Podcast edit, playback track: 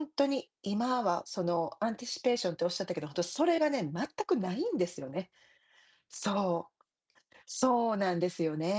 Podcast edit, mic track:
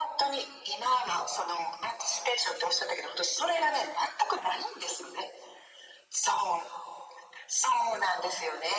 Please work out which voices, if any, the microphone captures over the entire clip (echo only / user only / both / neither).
echo only